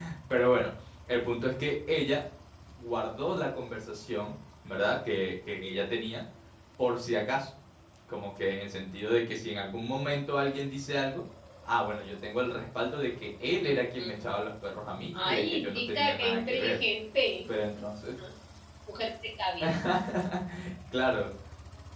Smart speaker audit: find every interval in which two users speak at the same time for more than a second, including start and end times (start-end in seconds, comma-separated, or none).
15.1-16.8